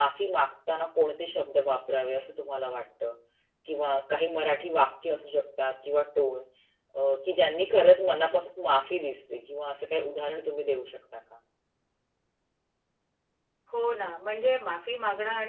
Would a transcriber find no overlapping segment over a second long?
Yes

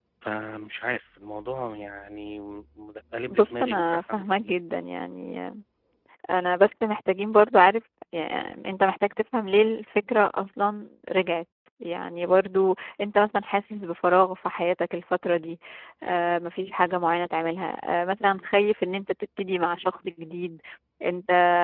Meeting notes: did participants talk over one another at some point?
Yes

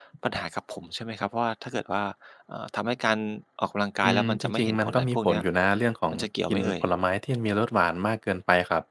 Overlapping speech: Yes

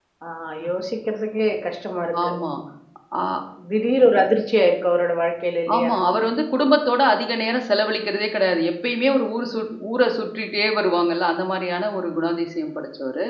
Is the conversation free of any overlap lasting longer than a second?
Yes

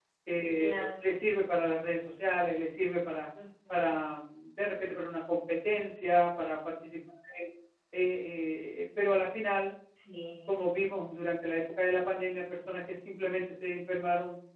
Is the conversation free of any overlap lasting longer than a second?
Yes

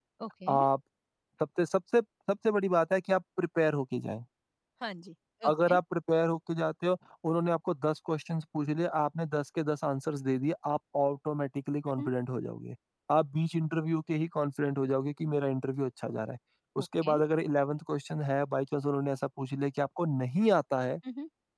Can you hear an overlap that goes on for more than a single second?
No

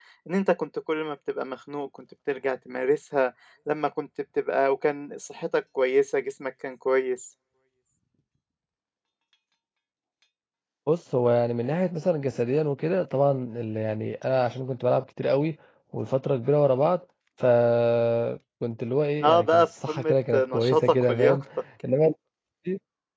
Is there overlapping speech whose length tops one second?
Yes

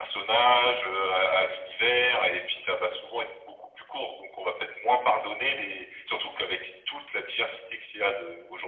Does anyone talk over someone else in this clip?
No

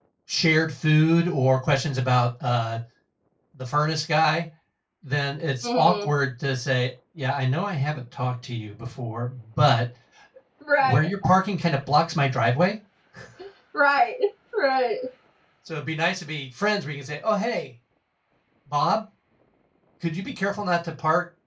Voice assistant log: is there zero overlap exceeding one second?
Yes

